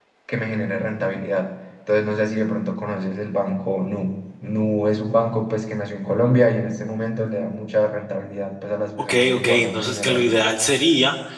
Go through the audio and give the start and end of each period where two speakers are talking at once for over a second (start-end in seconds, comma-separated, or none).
9.0-10.3